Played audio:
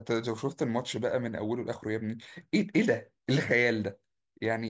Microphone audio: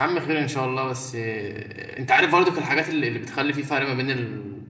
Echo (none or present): none